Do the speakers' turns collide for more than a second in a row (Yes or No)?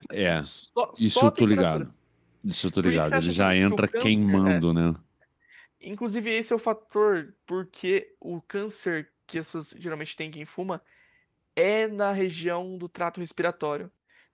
Yes